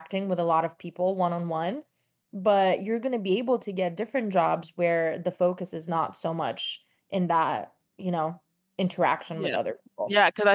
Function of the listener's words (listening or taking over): taking over